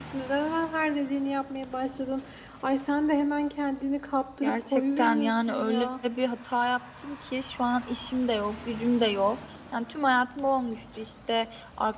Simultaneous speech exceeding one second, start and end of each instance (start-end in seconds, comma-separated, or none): 4.4-5.9